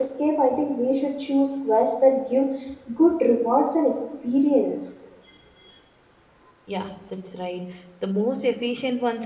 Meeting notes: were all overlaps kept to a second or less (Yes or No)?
Yes